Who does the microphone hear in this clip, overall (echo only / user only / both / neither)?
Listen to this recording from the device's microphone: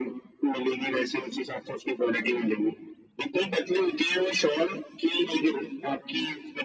echo only